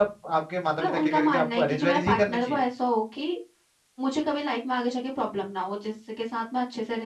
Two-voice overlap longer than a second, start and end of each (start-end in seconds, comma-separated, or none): 0.8-2.6